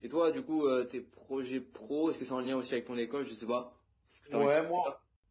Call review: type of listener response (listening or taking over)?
taking over